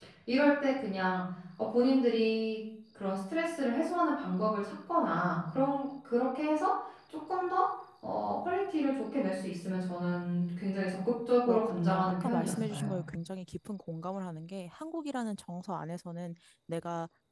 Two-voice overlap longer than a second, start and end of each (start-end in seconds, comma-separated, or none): 11.5-13.0